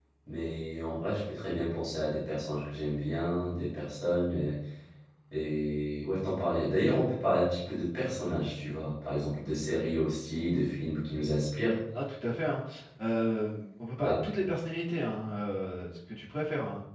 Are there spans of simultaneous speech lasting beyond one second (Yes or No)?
No